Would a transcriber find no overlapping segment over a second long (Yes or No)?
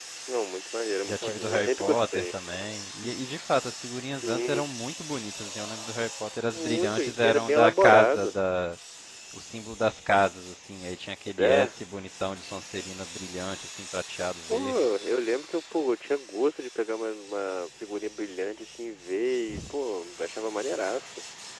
No